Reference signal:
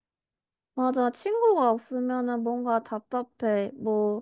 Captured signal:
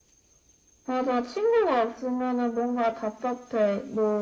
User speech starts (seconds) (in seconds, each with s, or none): none